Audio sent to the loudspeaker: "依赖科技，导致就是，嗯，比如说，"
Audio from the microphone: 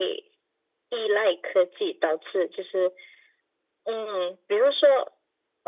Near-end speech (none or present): none